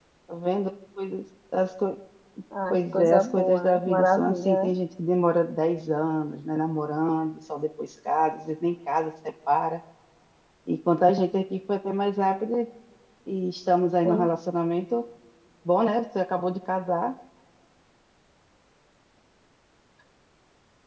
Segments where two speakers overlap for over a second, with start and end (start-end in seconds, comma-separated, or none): 2.7-4.7